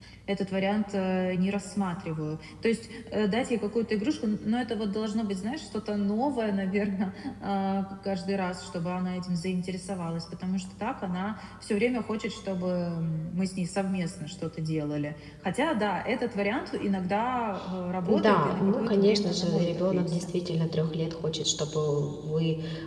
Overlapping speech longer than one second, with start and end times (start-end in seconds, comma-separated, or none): 18.0-20.2